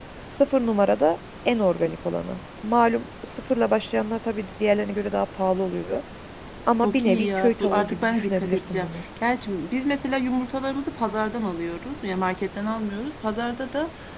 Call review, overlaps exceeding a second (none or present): present